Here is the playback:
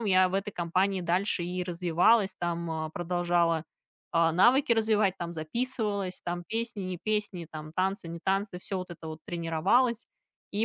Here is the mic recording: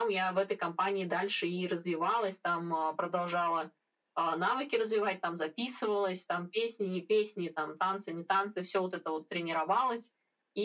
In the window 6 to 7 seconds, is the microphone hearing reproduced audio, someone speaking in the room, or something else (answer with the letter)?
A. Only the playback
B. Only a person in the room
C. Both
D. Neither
A